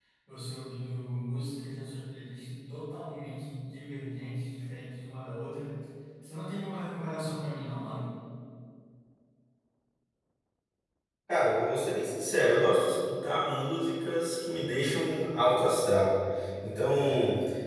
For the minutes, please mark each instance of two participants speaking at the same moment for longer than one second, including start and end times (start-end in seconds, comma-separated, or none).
none